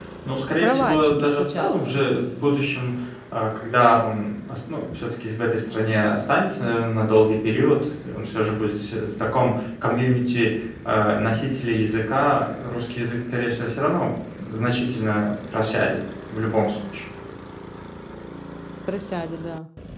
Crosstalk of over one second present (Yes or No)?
Yes